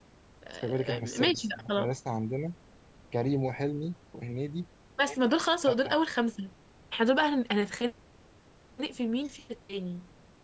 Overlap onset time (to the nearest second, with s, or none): 1 s